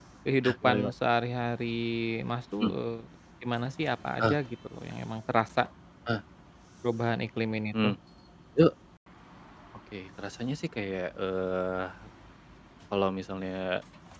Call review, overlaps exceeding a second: none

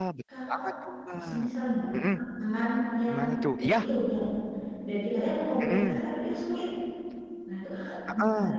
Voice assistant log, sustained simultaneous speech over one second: none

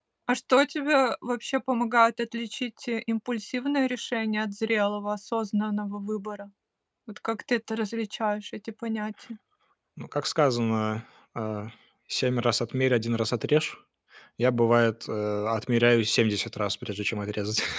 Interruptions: none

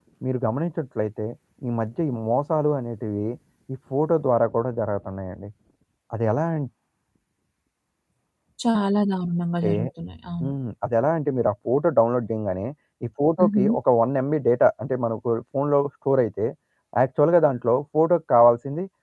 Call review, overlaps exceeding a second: none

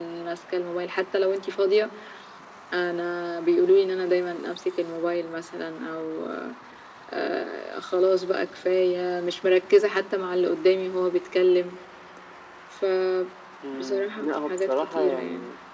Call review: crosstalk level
present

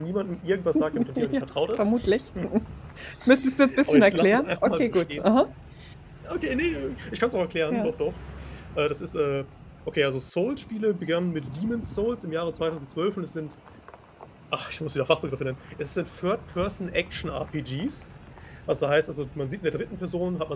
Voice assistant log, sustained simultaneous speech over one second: present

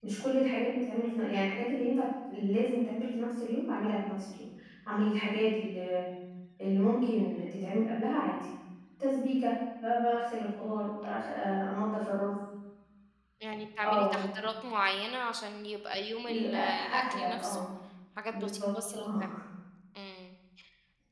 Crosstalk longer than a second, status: present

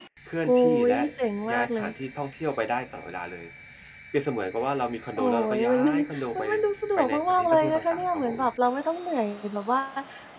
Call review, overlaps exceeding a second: present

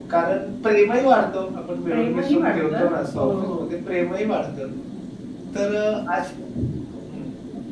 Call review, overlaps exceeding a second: present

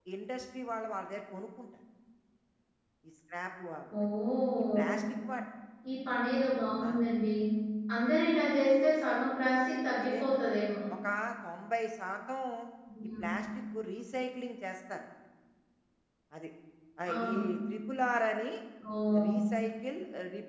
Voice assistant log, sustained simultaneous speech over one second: none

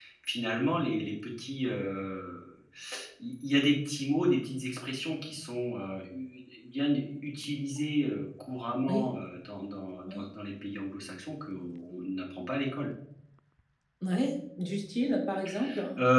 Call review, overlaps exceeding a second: none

